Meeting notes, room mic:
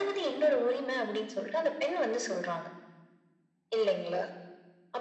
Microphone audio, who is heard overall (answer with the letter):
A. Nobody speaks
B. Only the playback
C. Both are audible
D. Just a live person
B